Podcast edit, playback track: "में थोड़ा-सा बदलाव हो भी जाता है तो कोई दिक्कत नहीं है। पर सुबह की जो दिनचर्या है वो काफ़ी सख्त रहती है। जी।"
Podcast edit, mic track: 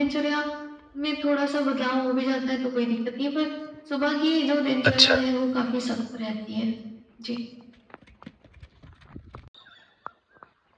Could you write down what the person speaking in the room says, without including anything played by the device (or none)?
अच्छा।